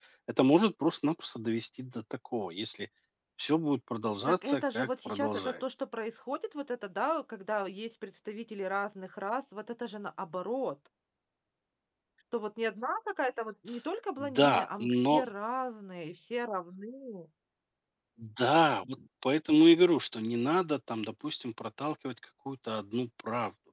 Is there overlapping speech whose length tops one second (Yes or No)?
Yes